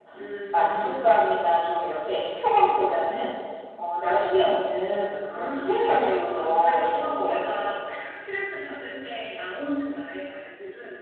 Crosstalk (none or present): present